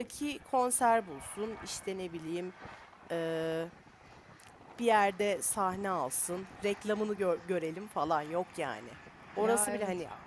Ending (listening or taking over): listening